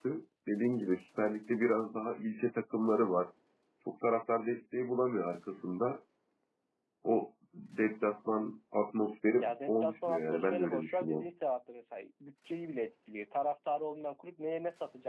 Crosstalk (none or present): present